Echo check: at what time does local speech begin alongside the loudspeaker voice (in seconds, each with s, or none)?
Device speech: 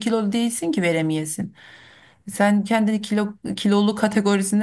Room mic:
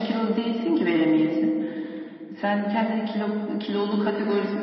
none